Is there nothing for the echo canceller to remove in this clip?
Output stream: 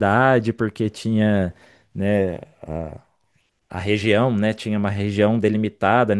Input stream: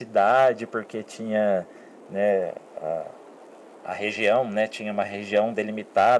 No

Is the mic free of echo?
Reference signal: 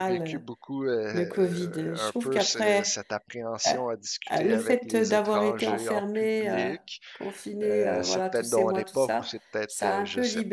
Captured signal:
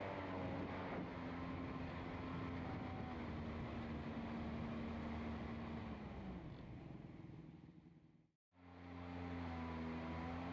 Yes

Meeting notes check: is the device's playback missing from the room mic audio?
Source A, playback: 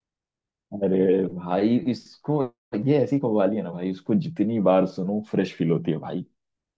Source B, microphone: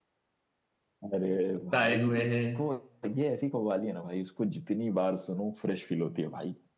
No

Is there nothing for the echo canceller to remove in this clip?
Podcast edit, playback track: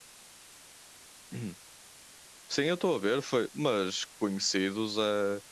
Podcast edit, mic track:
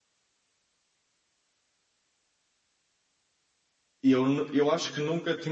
Yes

